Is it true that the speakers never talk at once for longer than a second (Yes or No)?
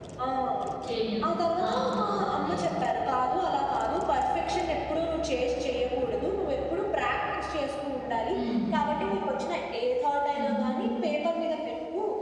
No